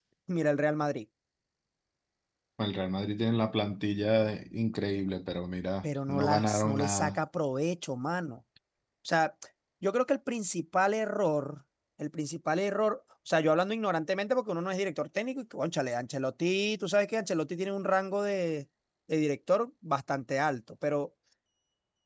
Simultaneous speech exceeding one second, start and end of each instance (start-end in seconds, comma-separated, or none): 5.8-7.2